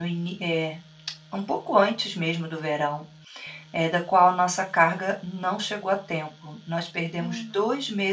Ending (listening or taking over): listening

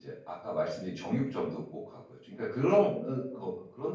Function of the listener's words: listening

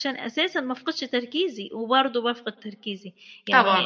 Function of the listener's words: listening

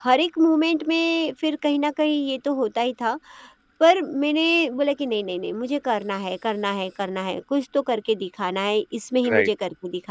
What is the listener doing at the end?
listening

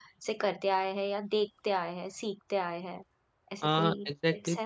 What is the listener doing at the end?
taking over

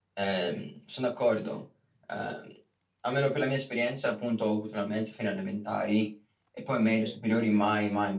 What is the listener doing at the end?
listening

